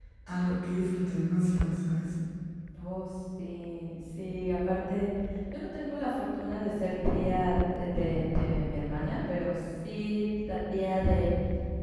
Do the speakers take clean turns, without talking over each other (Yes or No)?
Yes